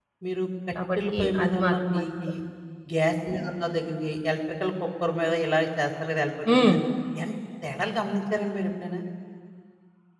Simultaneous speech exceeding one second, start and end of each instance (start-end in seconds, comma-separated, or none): 0.9-2.3